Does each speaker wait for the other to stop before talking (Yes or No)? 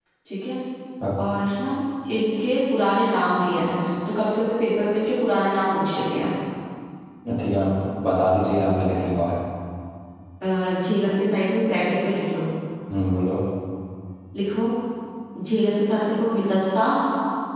Yes